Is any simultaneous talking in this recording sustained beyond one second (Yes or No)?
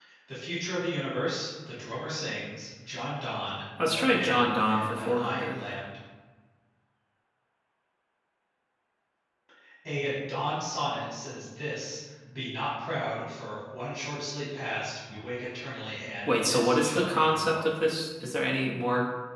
Yes